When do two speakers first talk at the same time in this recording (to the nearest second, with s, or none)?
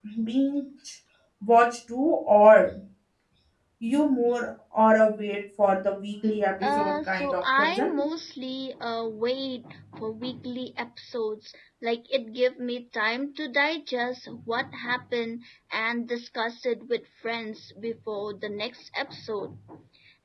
7 s